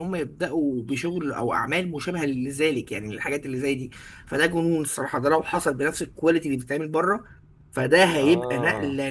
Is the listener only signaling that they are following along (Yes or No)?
Yes